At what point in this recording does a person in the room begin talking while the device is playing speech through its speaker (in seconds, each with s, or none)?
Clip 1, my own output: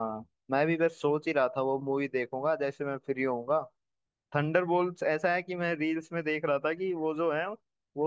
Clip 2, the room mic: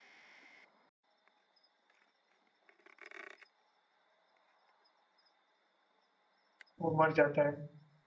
6.8 s